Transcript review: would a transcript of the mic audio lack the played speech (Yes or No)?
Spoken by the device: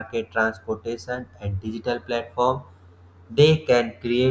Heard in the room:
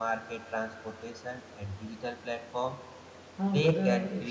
No